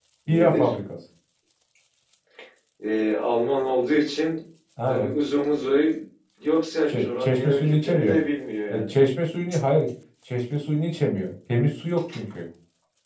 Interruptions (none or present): present